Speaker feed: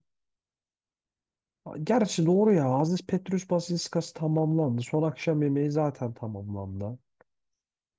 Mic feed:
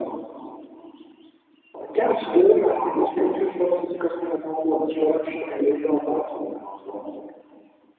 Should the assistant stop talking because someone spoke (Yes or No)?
No